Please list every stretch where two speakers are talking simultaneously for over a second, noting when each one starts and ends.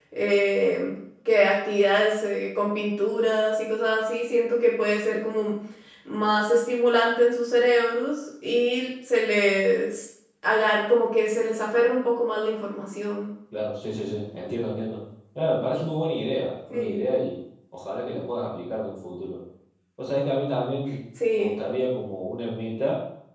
none

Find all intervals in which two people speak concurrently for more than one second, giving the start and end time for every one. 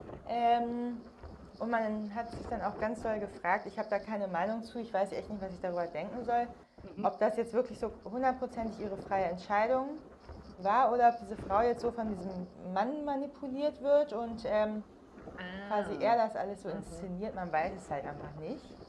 none

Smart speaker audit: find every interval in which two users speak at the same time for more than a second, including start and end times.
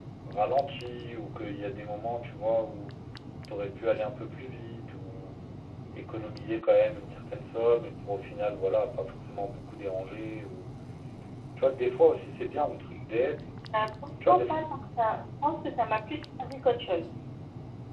none

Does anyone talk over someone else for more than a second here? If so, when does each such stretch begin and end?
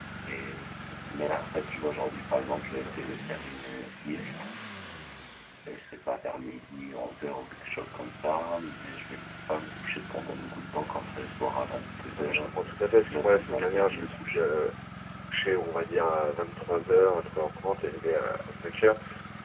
13.1-14.4

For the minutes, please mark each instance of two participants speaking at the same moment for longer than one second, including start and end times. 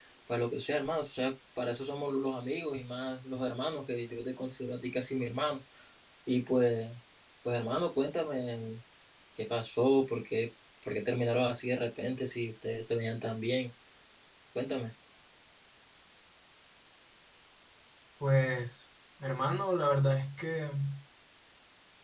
none

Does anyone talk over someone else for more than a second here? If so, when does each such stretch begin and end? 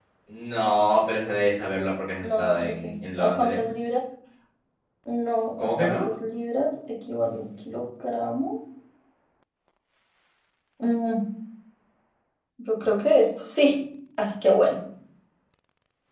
2.2-3.6

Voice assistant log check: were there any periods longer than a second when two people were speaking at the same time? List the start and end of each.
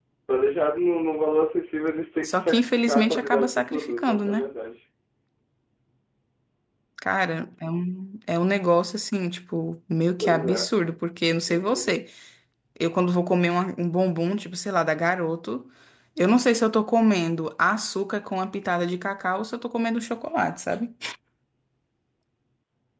2.2-4.5

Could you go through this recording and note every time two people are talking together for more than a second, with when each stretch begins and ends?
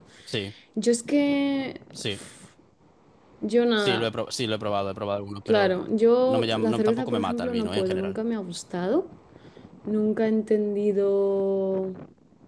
6.3-8.2

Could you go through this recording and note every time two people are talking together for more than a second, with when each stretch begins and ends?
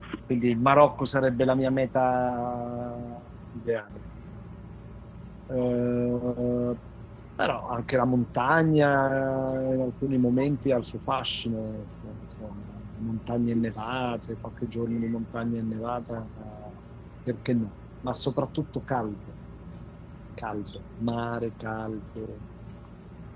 none

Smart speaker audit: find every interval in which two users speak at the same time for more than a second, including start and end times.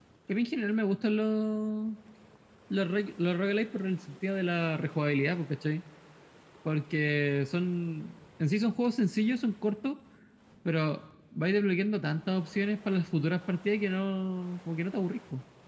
none

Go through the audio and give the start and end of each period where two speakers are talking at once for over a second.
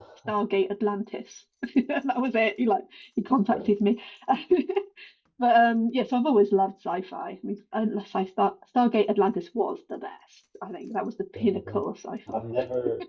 none

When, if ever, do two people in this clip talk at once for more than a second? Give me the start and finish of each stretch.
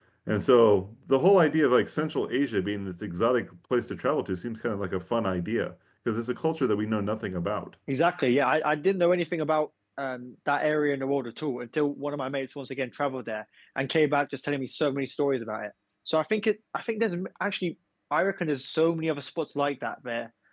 none

